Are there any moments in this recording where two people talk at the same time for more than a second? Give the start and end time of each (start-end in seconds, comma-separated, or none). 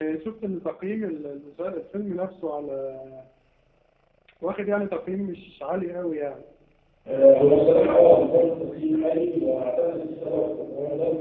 none